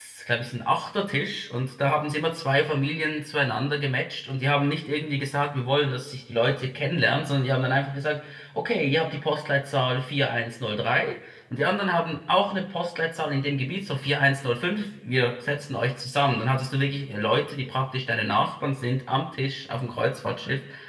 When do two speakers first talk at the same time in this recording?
none

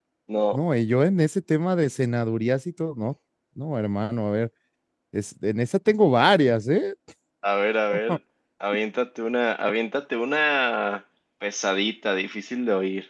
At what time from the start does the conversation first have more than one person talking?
none

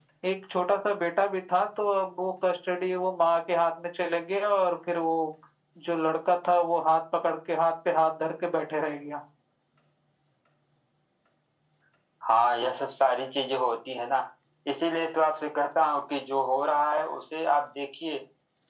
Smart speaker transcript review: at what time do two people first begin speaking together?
none

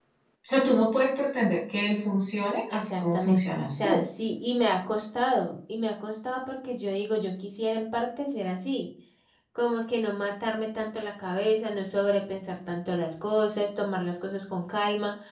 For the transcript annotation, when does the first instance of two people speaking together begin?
2.7 s

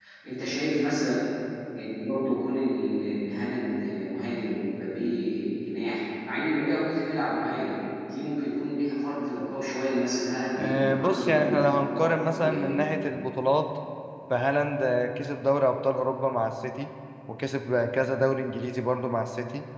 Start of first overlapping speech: 10.6 s

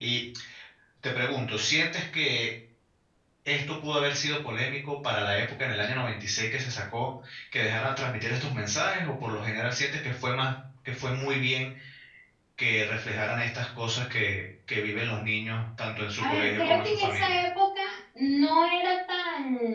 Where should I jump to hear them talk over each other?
16.2 s

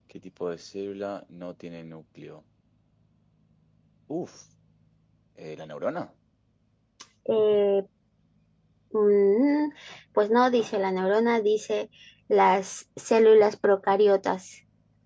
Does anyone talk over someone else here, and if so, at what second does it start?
none

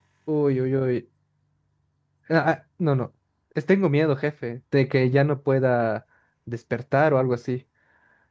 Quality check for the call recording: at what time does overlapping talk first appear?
none

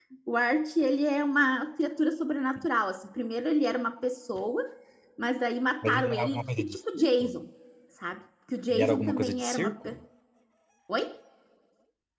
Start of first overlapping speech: 5.8 s

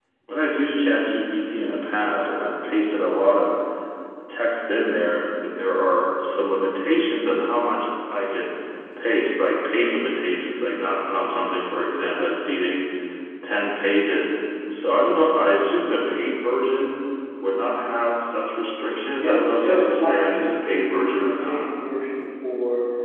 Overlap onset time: 19.1 s

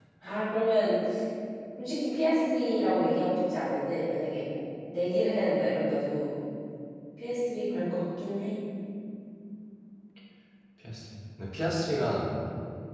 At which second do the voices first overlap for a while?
none

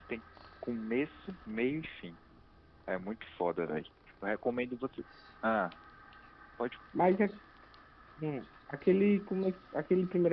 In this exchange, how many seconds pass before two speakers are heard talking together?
none

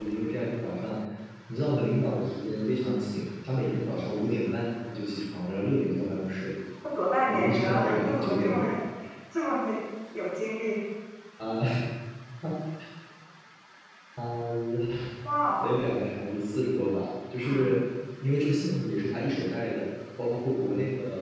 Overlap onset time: 7.3 s

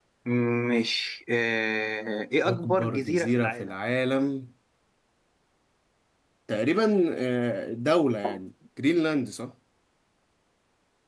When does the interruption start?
2.5 s

